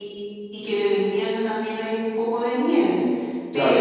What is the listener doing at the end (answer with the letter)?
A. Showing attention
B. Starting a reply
B